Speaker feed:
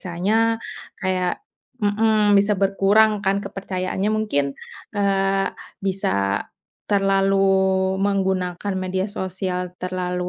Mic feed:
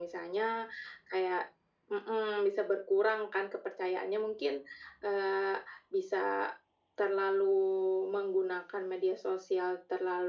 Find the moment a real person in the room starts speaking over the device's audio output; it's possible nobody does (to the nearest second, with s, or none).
none